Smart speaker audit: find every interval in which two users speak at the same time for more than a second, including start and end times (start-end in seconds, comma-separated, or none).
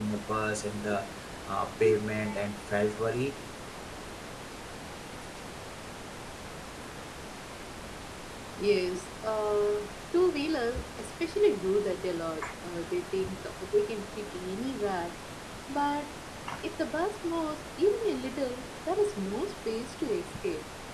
none